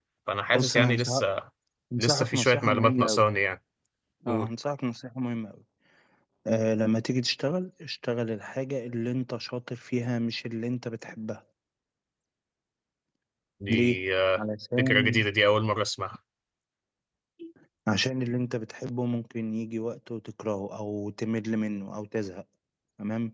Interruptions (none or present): present